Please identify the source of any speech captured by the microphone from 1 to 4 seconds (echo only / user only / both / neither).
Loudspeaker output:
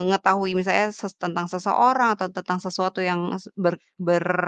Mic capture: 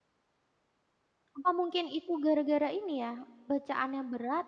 user only